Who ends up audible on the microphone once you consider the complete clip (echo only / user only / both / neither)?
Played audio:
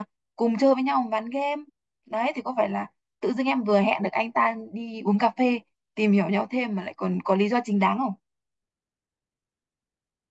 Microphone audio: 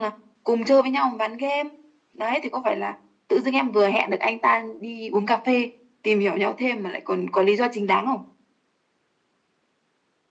echo only